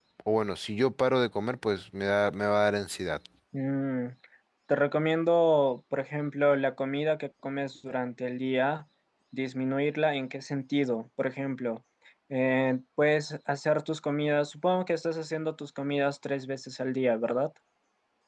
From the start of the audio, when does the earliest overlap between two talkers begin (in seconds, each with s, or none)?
none